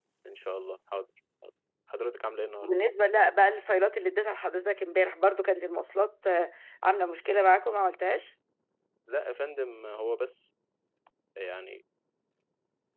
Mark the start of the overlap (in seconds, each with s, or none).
none